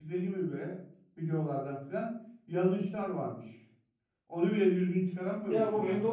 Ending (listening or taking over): taking over